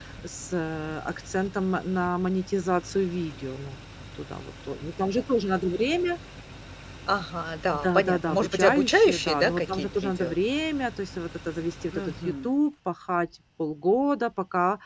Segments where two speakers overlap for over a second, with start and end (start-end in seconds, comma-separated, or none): 7.7-10.4